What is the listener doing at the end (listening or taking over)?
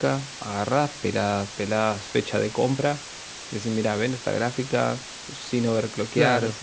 listening